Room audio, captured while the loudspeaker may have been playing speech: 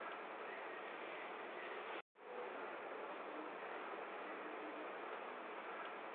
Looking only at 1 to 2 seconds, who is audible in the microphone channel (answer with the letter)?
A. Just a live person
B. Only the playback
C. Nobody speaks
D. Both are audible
C